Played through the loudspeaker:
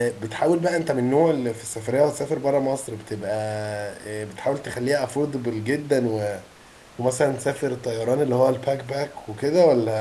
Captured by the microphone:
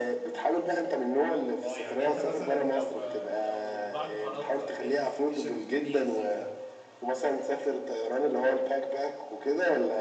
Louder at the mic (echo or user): echo